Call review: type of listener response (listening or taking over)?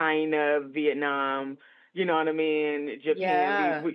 listening